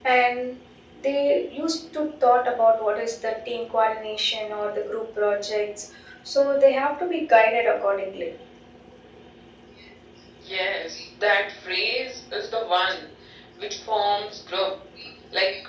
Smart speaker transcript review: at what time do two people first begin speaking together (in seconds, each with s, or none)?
none